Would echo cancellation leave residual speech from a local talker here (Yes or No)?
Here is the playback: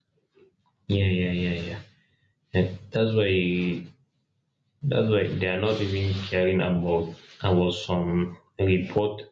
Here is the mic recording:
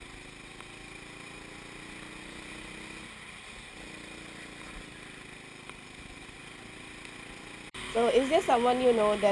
Yes